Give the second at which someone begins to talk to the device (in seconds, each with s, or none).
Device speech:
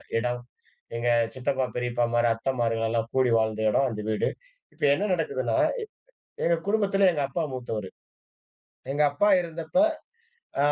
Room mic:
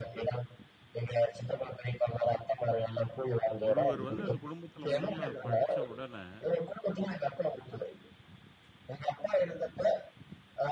3.6 s